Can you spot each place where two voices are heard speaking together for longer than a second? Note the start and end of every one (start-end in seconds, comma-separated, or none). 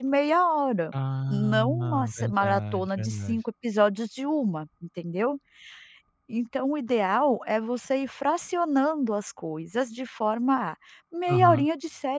1.3-3.4